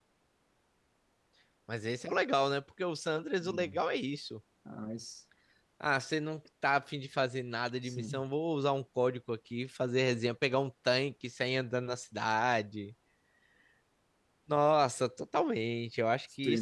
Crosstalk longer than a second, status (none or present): none